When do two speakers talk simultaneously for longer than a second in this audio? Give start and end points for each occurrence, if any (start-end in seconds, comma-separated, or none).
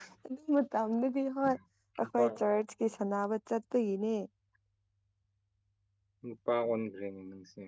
none